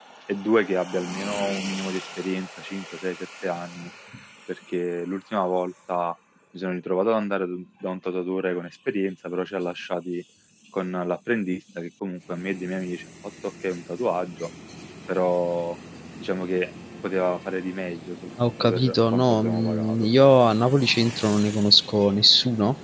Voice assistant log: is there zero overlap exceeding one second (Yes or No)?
No